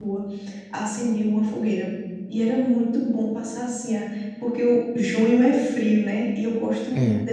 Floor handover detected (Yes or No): No